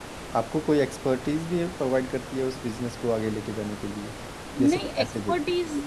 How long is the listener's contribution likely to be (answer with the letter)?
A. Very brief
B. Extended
B